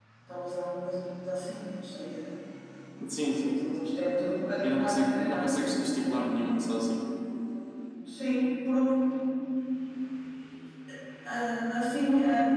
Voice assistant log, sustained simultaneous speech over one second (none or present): present